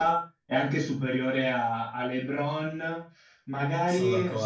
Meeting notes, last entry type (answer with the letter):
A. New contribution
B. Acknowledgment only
B